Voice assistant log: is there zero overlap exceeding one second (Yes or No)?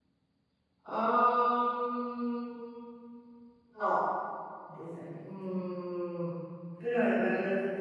Yes